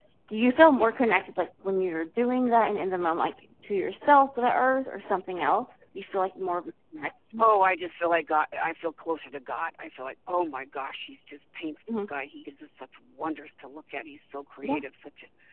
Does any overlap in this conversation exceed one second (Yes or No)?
No